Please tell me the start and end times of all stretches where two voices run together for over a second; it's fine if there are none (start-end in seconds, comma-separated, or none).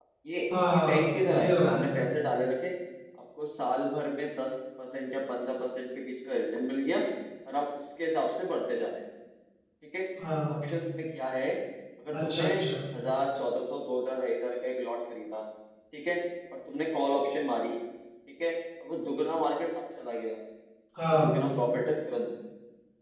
0.7-2.0